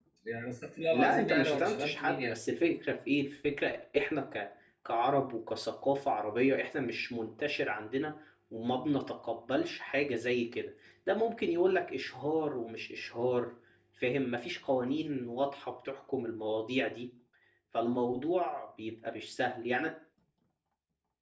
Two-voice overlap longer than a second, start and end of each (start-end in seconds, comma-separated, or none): 0.9-2.4